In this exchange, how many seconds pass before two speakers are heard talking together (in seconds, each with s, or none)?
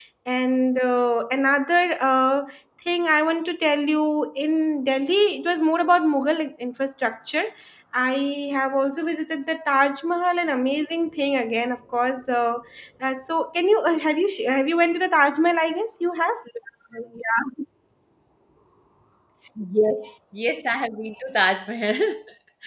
none